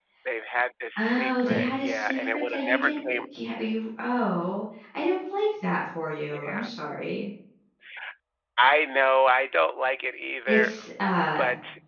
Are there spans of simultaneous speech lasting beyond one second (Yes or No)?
Yes